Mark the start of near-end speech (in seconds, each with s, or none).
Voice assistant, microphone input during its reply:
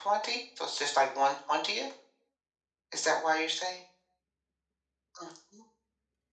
none